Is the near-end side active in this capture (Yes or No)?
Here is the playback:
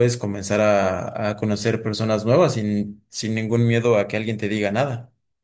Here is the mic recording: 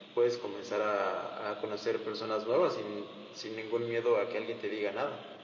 No